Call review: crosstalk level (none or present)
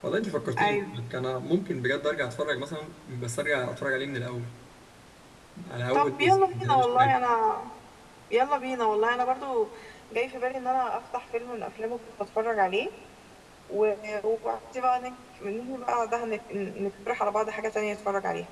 present